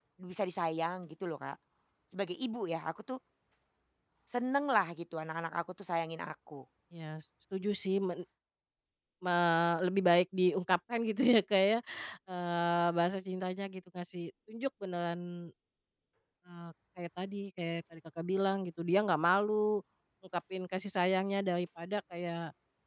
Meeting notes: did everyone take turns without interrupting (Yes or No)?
Yes